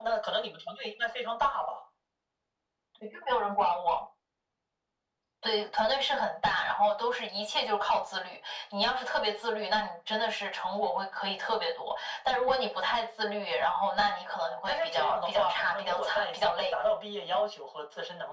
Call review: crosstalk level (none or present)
present